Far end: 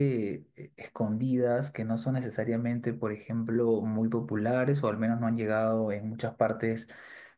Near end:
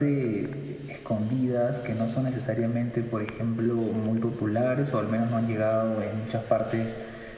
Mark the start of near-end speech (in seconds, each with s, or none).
none